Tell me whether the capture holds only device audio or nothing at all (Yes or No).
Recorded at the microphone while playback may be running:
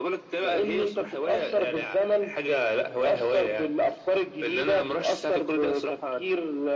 Yes